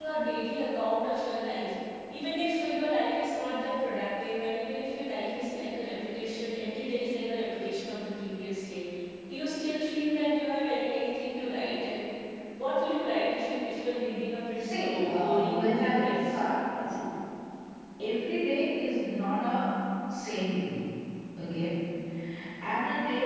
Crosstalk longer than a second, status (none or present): present